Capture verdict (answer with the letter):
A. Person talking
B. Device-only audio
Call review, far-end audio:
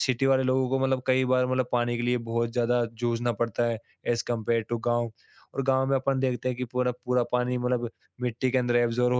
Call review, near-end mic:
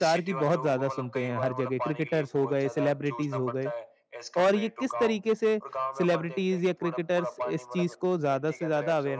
A